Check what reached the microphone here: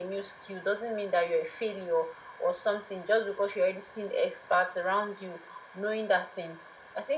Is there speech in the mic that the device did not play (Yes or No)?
No